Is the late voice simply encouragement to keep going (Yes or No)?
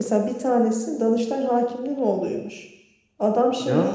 Yes